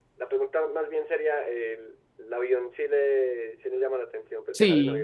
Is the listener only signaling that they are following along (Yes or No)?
No